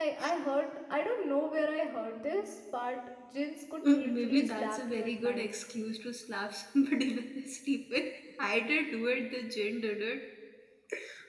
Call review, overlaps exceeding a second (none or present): present